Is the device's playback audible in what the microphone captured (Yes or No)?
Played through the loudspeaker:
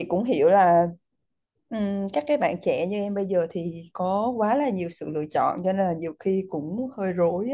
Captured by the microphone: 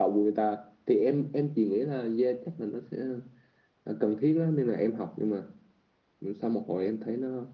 No